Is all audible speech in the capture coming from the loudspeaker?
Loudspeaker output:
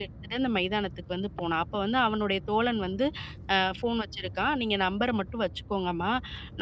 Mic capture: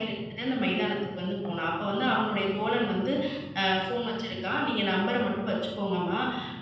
Yes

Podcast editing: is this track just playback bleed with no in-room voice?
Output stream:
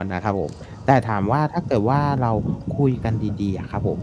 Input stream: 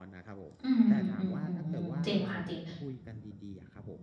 No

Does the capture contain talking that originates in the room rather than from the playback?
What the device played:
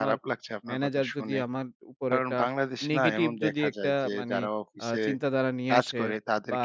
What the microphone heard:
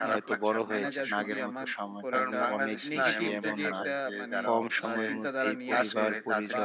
Yes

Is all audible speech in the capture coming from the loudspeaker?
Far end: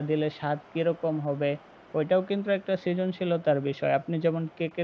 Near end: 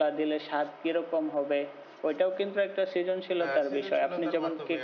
No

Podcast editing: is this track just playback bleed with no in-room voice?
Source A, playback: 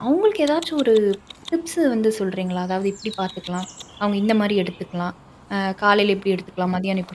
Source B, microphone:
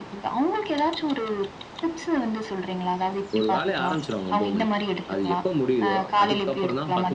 No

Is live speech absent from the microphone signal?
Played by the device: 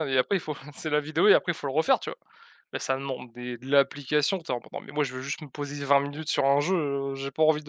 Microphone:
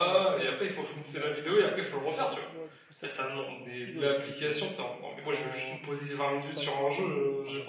No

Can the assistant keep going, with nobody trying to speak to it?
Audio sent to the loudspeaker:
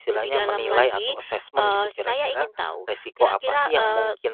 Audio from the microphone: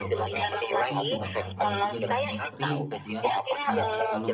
No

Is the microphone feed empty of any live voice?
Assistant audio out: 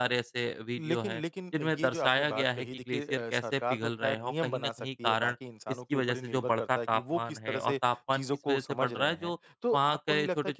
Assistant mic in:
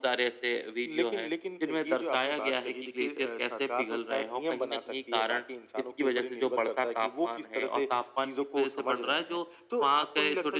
Yes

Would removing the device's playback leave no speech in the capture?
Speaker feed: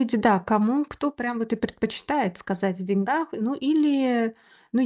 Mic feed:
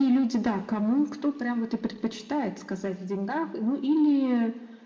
Yes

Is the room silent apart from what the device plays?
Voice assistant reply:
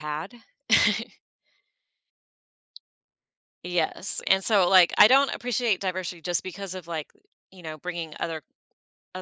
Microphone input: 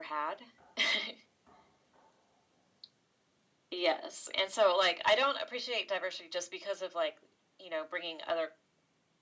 Yes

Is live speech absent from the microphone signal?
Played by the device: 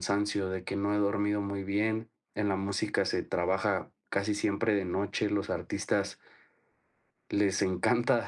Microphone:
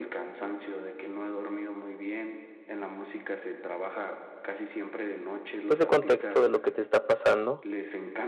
No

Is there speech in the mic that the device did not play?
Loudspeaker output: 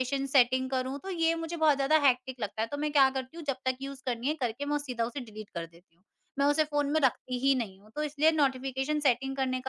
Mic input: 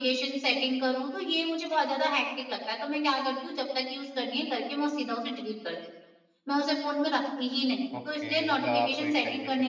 Yes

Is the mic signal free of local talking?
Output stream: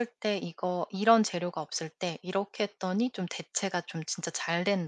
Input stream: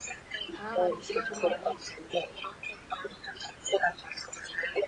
No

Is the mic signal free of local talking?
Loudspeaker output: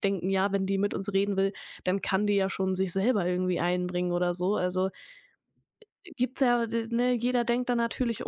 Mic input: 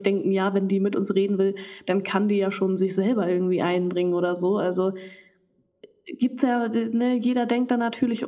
Yes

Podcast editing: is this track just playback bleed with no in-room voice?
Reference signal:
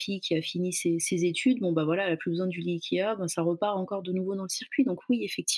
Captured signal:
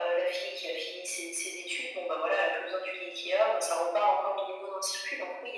Yes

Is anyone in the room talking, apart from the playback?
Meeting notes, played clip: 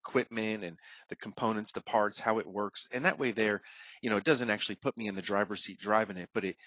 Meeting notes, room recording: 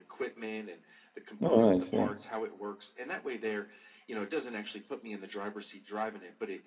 Yes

